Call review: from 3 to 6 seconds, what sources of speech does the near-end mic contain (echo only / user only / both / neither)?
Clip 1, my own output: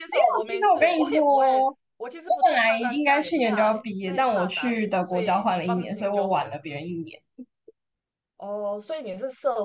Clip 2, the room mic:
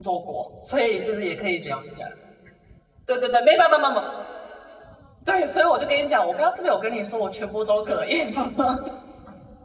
user only